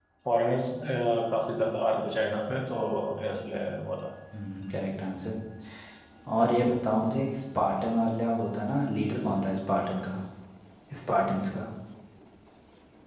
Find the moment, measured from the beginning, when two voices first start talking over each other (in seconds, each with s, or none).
none